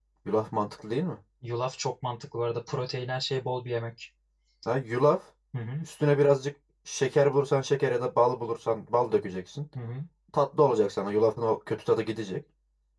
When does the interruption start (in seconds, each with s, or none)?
none